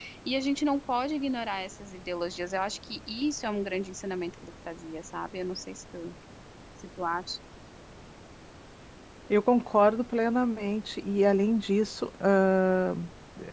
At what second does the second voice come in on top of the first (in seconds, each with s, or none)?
none